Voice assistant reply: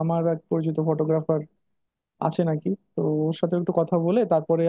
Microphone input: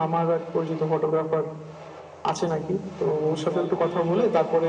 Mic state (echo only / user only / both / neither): both